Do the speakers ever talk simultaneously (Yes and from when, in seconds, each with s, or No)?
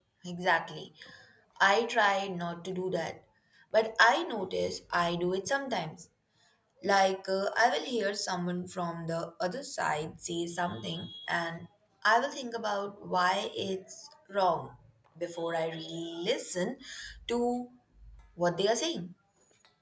No